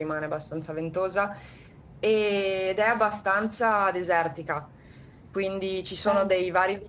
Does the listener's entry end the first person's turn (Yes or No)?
No